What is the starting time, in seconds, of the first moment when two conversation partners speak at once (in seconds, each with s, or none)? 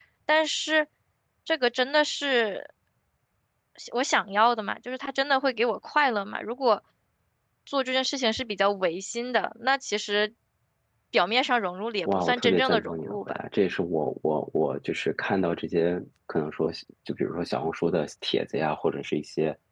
12.1 s